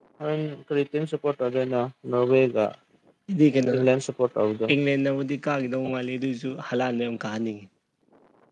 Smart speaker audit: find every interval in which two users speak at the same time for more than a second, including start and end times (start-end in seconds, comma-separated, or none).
none